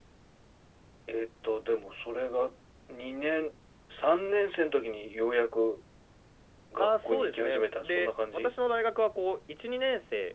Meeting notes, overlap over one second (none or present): present